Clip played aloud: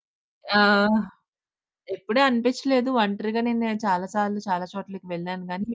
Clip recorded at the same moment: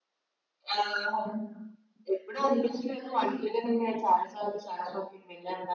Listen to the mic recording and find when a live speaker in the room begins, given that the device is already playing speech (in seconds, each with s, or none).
none